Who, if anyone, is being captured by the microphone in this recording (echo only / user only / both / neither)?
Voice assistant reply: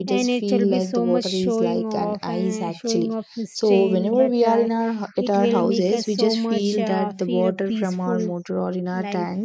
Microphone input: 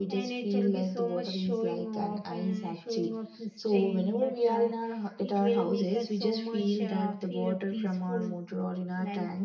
echo only